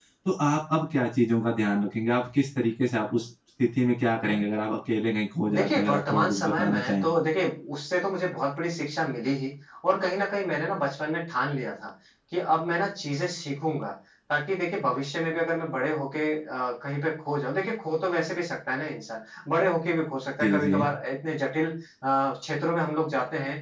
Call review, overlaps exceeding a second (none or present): present